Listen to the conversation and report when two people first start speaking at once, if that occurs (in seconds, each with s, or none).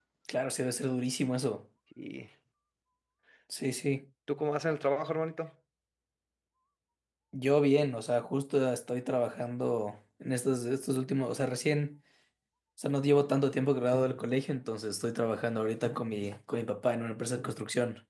none